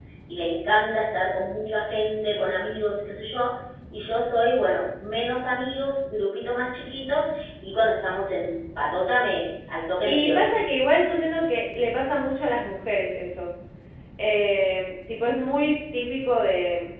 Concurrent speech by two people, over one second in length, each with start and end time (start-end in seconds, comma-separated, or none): none